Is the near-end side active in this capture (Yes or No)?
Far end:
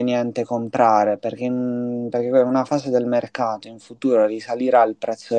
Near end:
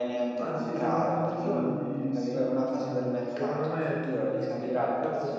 Yes